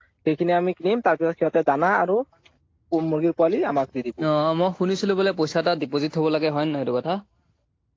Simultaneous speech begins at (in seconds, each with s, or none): none